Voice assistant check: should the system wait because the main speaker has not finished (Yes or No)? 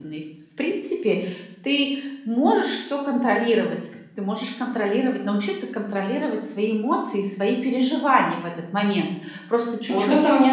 No